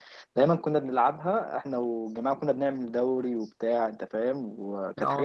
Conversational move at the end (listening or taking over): listening